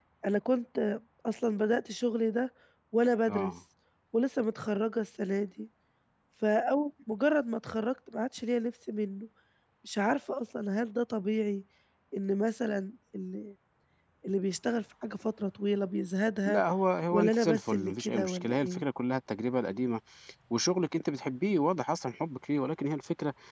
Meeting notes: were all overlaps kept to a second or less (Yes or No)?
No